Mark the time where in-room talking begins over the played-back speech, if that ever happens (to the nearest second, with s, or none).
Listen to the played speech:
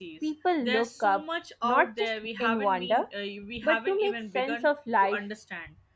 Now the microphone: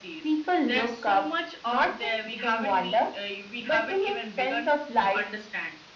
none